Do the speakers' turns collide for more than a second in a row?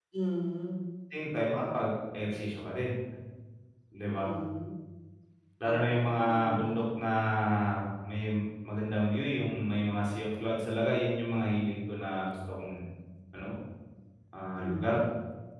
Yes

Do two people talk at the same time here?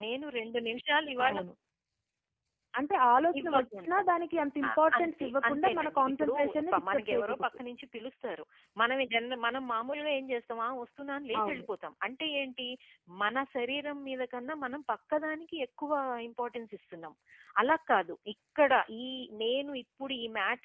Yes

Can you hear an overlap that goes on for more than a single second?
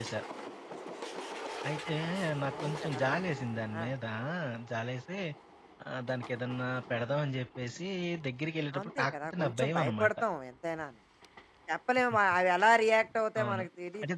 Yes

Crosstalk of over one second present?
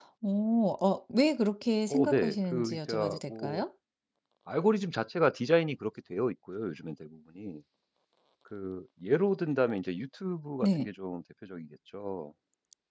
Yes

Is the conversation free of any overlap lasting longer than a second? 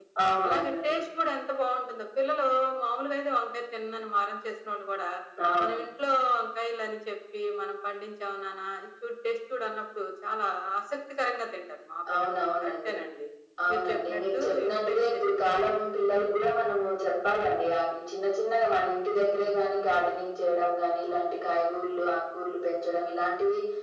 No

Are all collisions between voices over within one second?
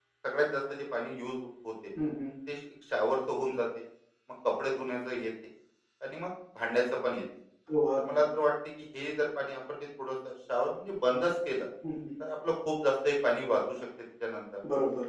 Yes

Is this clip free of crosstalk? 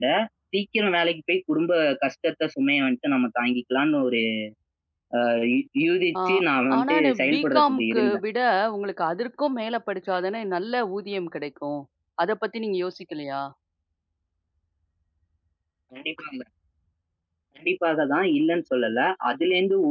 No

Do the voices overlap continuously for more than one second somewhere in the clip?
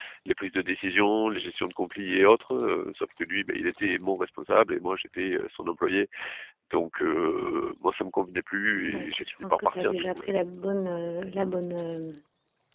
Yes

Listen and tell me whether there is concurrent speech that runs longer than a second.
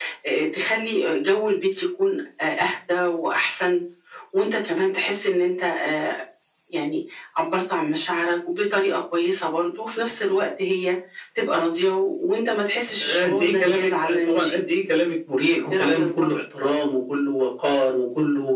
Yes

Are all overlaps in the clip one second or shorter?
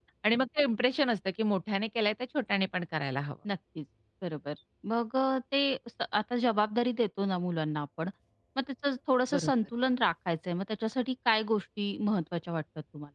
Yes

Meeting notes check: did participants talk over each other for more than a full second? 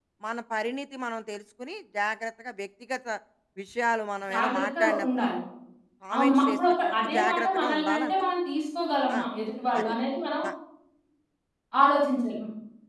Yes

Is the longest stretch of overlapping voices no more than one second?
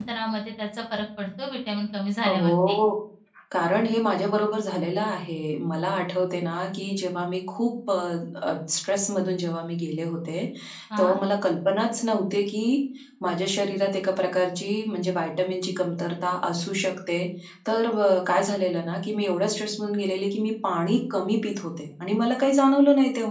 Yes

